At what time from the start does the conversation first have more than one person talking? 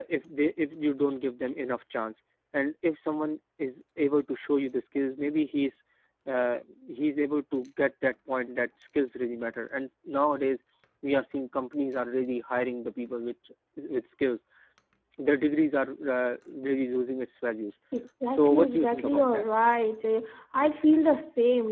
18.2 s

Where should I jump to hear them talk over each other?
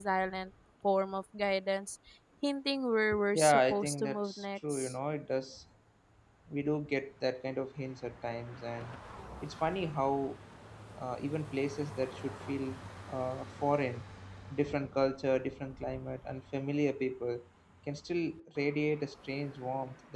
3.3 s

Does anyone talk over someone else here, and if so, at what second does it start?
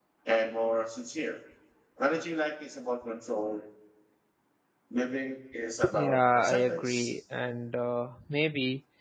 5.8 s

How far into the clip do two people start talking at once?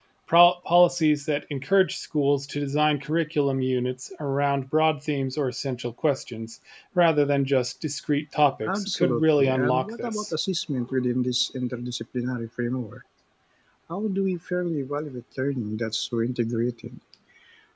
8.6 s

